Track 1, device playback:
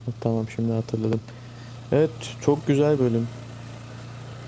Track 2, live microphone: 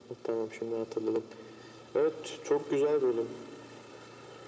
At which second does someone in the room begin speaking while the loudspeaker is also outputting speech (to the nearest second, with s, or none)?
none